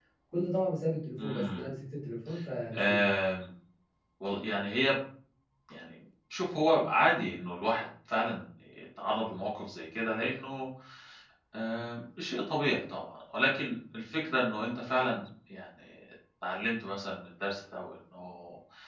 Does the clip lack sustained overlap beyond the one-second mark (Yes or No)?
Yes